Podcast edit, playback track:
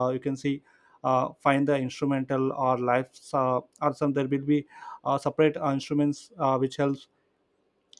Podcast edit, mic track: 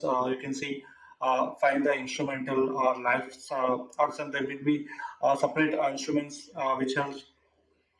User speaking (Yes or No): No